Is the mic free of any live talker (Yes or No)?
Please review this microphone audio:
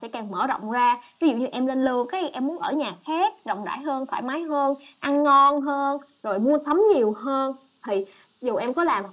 Yes